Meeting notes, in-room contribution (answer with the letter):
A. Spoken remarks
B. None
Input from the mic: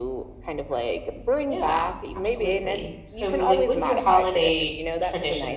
A